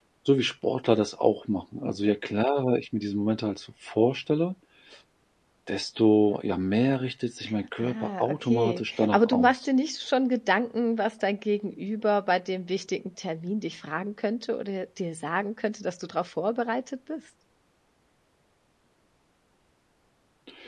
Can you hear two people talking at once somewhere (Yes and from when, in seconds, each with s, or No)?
Yes, from 7.8 s